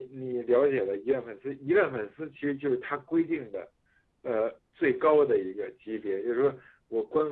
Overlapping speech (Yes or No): No